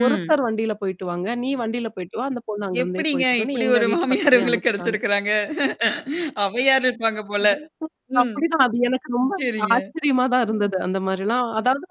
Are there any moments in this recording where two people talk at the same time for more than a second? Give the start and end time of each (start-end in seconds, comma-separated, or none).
2.8-5.0